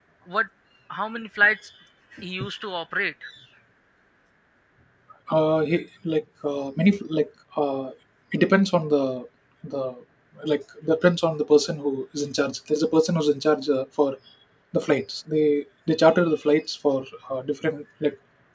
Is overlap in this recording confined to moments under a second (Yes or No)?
Yes